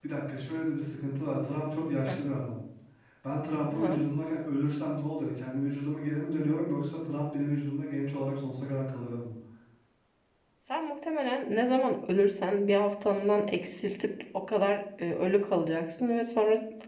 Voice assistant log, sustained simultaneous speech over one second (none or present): none